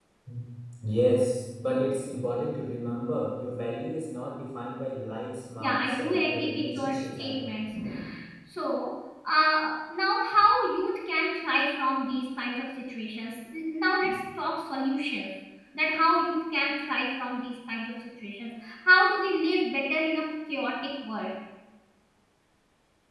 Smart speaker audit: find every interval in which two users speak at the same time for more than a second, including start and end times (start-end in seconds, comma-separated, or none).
5.6-7.5